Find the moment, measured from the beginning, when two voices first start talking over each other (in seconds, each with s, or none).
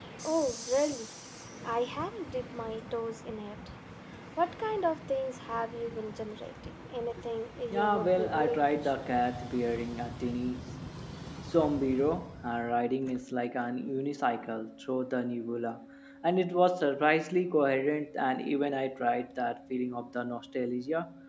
7.7 s